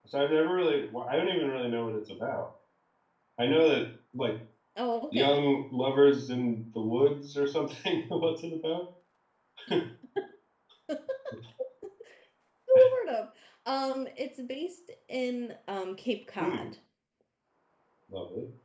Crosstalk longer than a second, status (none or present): none